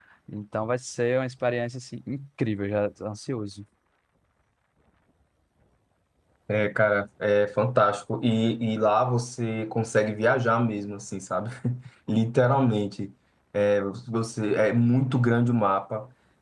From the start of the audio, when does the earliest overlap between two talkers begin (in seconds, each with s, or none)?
none